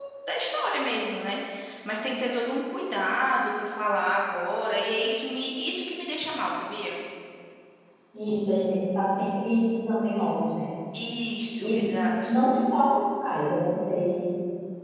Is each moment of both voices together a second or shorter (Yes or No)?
Yes